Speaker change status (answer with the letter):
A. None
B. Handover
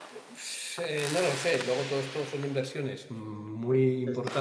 A